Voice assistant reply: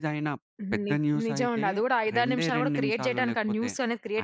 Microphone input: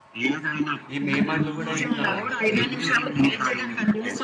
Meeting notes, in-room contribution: present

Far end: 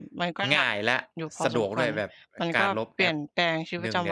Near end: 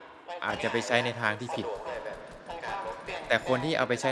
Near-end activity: present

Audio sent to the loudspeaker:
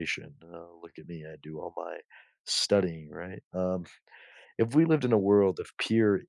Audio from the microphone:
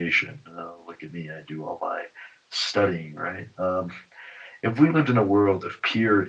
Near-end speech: none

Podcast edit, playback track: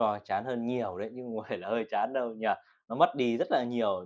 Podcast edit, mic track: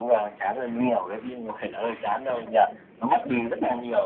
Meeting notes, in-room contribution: none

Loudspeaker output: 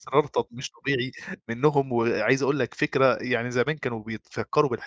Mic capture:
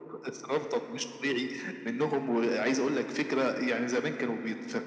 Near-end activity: none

